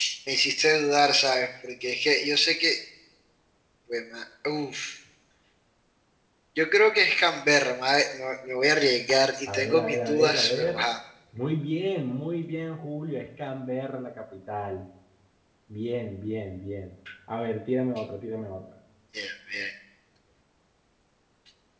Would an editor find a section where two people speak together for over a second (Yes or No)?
Yes